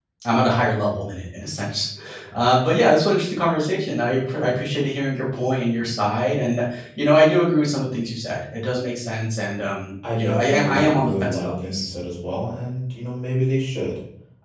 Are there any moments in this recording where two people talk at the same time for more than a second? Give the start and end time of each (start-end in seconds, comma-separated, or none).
10.2-11.9